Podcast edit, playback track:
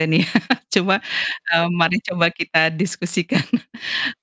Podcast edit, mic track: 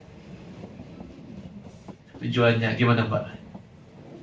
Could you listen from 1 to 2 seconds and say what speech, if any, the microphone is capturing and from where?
neither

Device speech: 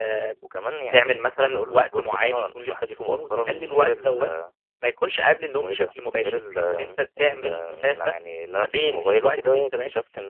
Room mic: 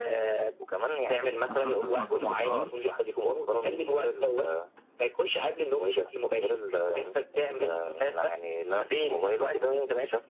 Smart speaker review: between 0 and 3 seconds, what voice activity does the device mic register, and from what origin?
both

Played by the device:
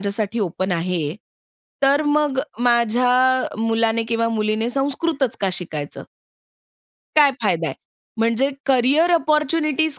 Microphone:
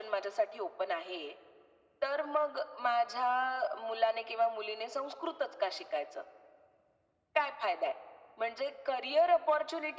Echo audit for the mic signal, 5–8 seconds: echo only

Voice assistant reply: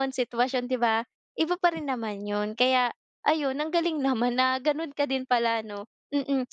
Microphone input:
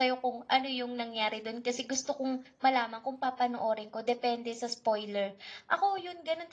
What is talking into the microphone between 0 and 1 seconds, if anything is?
user only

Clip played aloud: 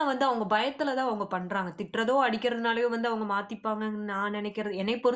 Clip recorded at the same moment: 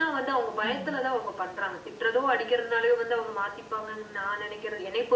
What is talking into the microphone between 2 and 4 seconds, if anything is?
echo only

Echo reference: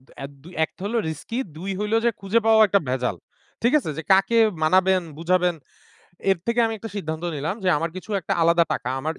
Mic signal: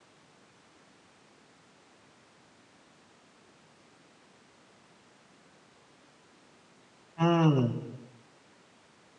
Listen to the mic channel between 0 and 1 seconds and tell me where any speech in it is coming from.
neither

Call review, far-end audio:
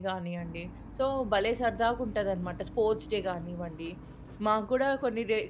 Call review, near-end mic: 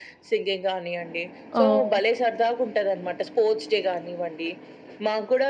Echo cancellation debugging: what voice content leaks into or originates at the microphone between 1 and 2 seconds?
both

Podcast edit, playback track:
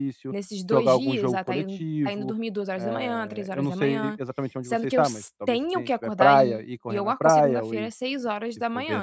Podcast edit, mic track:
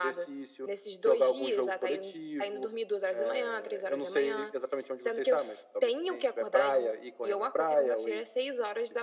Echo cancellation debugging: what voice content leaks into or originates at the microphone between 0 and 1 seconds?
echo only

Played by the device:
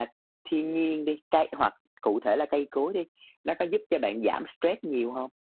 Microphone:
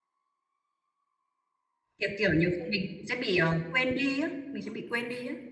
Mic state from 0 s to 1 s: neither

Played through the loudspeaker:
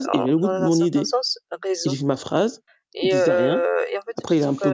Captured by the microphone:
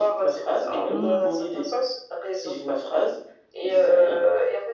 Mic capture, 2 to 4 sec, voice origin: echo only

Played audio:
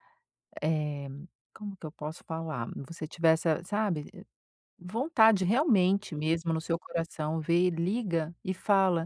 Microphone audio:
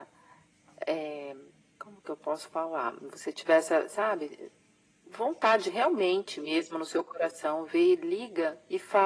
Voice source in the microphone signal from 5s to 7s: echo only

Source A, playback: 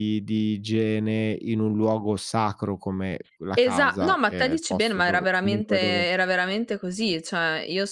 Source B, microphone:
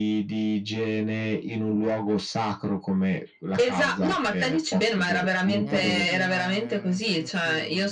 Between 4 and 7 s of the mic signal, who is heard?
both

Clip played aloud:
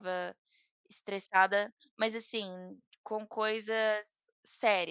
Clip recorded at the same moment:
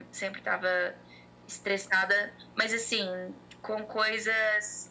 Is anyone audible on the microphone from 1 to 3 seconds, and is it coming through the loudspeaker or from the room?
echo only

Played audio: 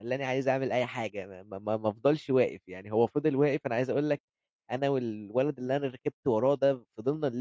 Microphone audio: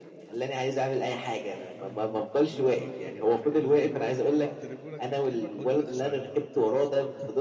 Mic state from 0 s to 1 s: echo only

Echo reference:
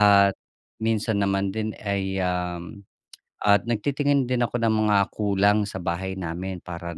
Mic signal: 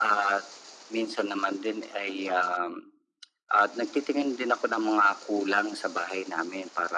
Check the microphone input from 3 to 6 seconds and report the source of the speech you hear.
echo only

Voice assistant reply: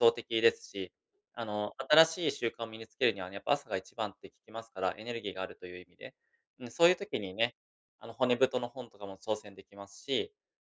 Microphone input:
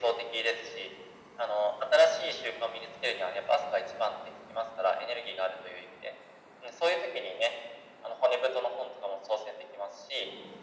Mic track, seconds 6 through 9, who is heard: echo only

